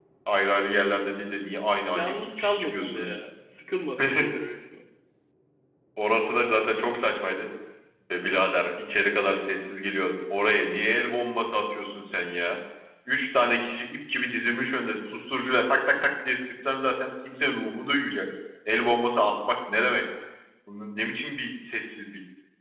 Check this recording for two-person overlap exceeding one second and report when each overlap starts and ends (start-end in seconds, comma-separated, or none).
1.9-3.2